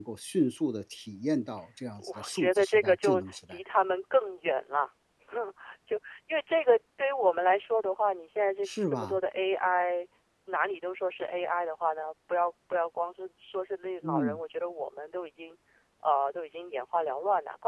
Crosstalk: present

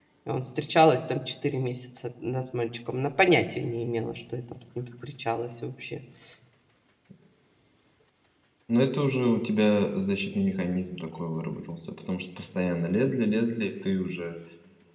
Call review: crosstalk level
none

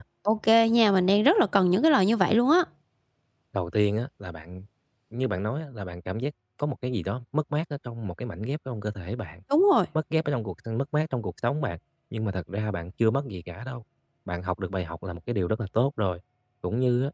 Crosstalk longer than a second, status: none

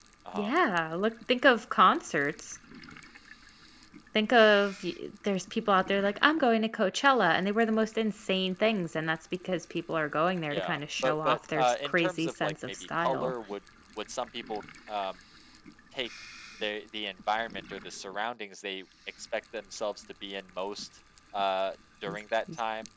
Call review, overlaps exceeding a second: present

